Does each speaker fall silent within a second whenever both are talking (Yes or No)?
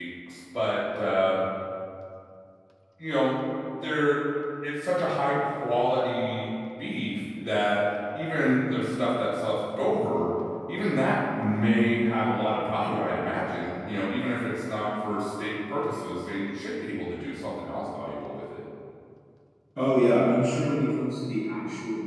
Yes